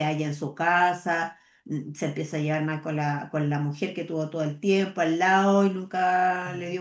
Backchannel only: No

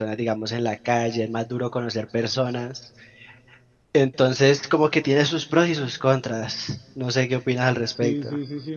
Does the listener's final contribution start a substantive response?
Yes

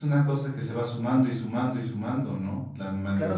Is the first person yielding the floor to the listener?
Yes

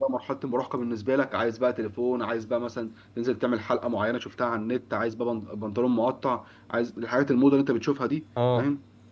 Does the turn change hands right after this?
No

